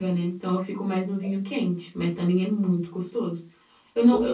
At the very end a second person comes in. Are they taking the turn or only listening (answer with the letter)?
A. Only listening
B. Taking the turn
A